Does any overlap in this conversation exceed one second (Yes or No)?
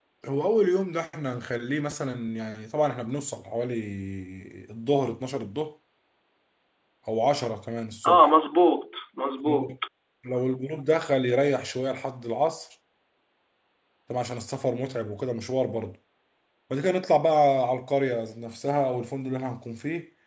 No